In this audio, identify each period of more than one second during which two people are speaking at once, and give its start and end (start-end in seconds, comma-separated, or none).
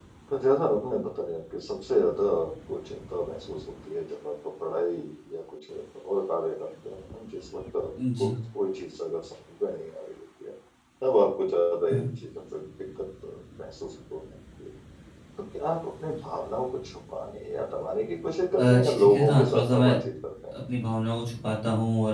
18.6-19.9